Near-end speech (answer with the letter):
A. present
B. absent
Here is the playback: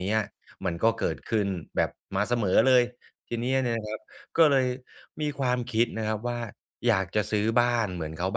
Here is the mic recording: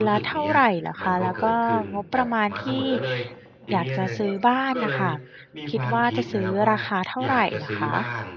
A